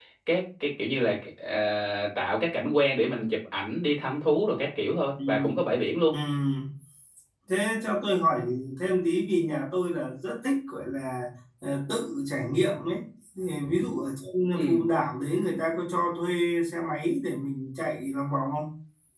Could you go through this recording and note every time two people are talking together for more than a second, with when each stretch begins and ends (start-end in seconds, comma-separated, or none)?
none